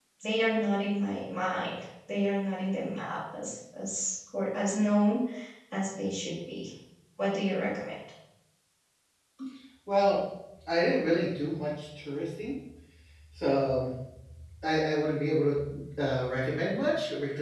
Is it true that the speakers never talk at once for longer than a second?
Yes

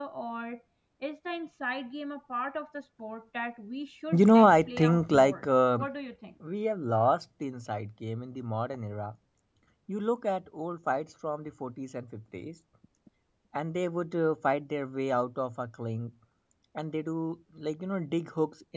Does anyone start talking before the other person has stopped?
Yes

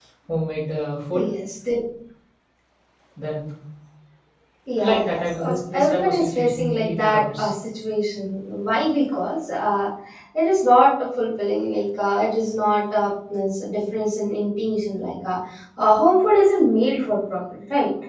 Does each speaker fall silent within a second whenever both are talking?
No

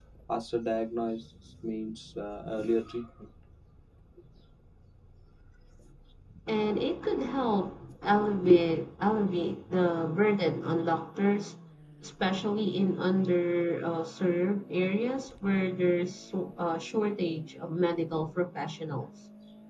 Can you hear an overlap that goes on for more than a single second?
No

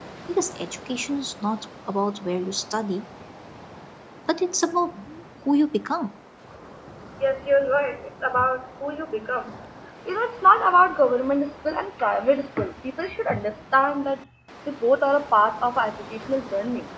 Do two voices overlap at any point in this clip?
No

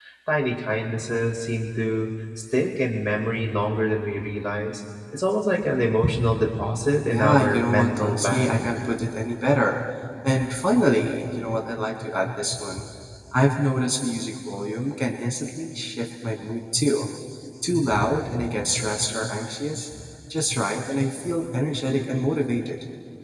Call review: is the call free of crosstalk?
No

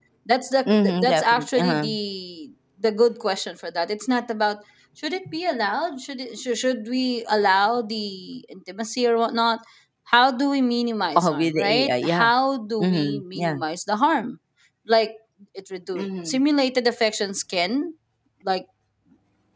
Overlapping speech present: Yes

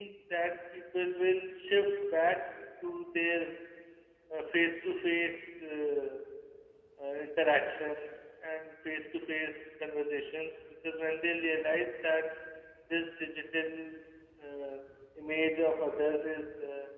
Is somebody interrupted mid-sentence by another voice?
No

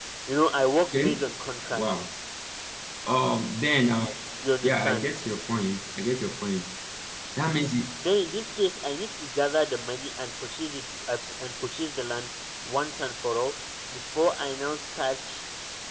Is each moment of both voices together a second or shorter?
Yes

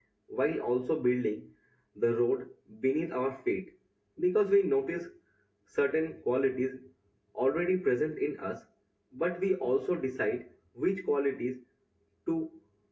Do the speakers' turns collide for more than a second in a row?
No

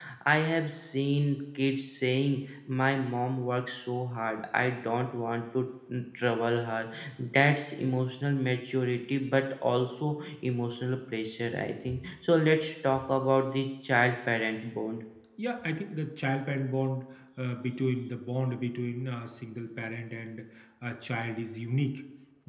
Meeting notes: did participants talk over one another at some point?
No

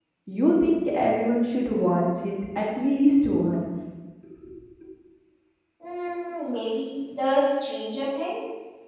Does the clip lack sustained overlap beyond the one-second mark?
Yes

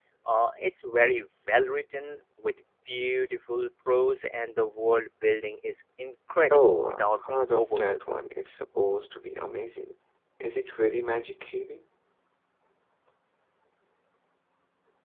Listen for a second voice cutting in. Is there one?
Yes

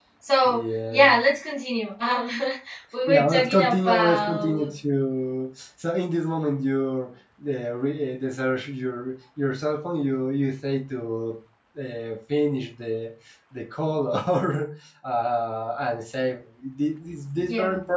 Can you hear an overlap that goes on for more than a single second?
Yes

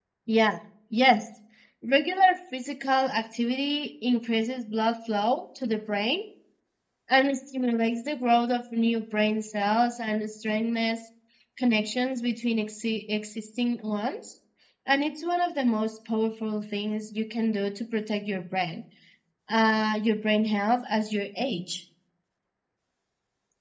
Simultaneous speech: No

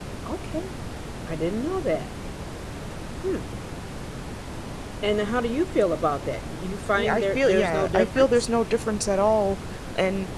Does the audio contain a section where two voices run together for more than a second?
Yes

